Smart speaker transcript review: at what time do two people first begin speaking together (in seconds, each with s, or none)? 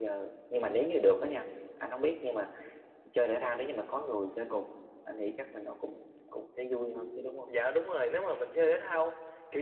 none